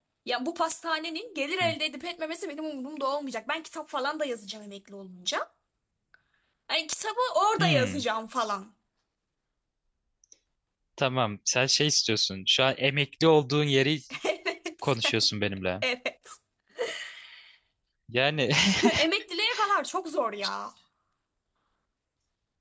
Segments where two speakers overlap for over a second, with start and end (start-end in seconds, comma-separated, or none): none